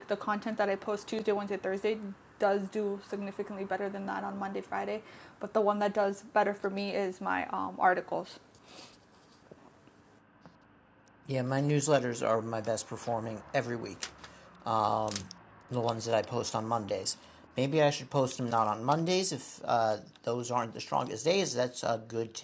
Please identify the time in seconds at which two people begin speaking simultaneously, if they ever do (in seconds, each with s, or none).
none